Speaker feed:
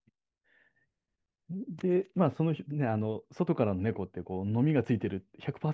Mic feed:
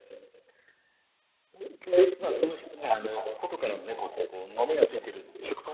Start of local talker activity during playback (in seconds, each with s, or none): none